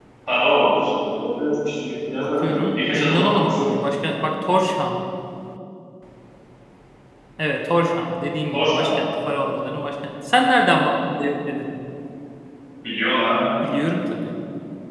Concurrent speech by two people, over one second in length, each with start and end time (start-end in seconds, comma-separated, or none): 2.2-3.7